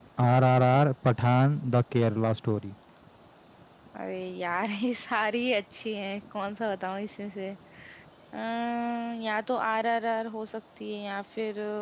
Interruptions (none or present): none